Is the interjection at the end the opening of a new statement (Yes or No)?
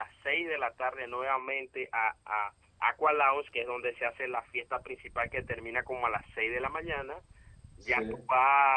No